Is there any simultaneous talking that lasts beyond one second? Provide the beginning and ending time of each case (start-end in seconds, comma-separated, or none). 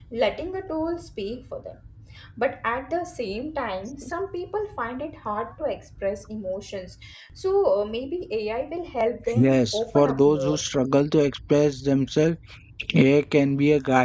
9.3-10.6